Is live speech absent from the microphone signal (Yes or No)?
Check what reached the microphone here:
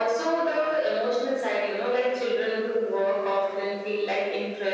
Yes